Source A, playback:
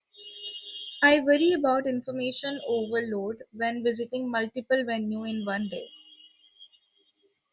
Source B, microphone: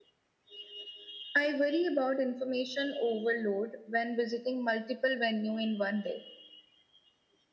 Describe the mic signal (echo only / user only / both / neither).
echo only